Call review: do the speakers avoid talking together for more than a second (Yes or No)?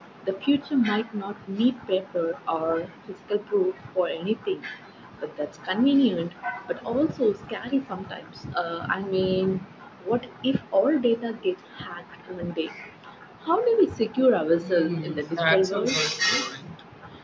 No